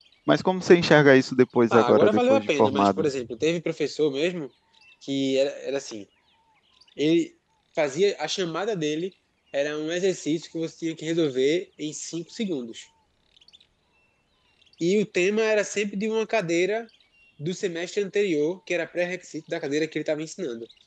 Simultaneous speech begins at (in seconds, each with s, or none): 1.7 s